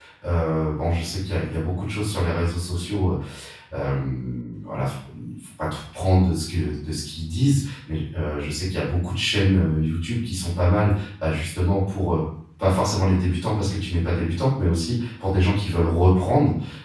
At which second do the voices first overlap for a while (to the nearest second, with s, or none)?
none